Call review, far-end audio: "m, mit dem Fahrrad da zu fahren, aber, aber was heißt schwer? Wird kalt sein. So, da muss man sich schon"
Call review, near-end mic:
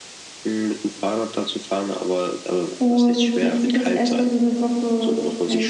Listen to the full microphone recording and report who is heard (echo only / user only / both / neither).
both